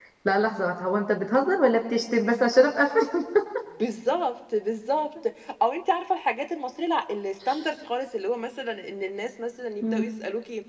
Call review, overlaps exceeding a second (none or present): none